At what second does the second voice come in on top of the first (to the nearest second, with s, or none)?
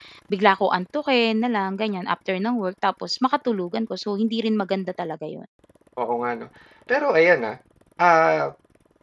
none